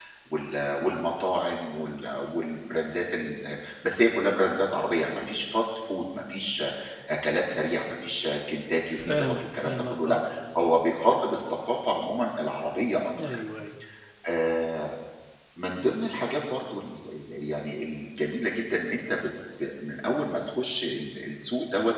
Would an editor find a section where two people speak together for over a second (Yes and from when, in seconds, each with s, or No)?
Yes, from 8.9 s